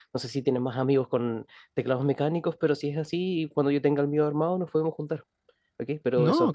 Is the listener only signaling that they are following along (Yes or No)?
Yes